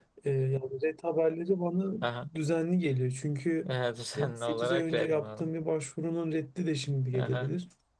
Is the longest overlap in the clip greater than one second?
Yes, from 4.2 s

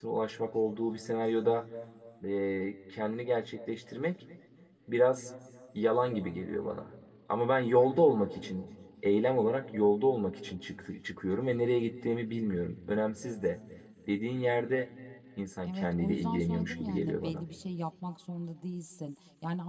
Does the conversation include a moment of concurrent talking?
Yes, from 15.6 s

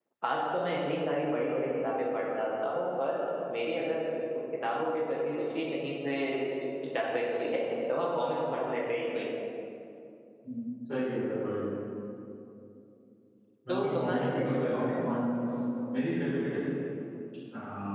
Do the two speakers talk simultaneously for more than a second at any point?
Yes, from 13.7 s

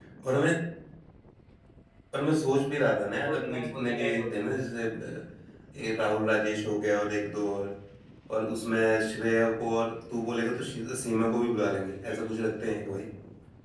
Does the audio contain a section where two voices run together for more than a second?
Yes, from 3.2 s

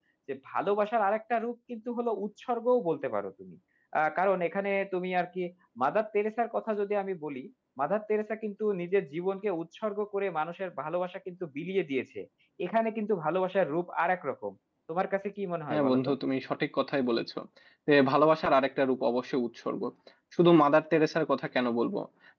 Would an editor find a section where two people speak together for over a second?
No

